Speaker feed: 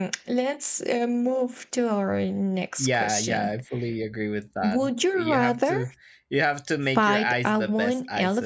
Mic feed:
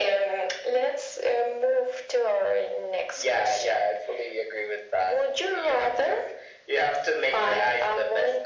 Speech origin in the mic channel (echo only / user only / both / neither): echo only